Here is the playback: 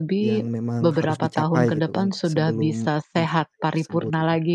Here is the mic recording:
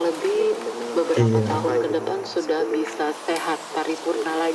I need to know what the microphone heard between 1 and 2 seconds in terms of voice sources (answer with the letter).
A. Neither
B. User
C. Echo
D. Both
D